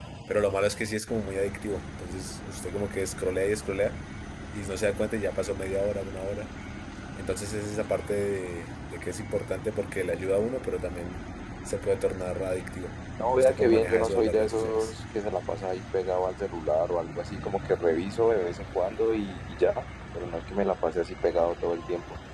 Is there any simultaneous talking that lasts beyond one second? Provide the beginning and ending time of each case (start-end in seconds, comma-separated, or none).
13.4-14.9